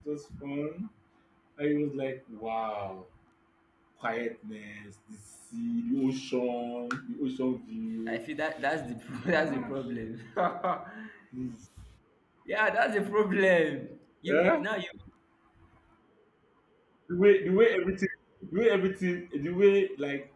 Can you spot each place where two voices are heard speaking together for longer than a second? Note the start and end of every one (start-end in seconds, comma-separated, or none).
none